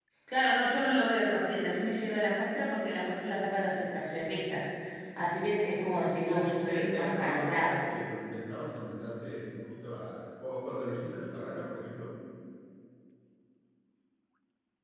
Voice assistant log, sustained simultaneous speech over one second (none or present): present